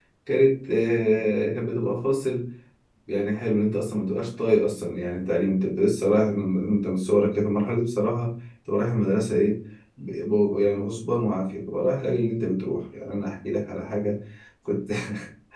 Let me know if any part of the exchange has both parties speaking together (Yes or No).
No